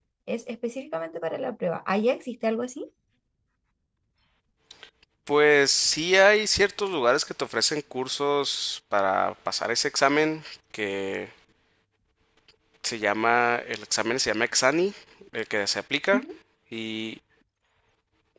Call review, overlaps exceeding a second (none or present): none